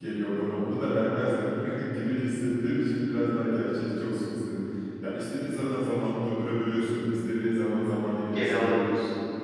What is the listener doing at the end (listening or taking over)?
listening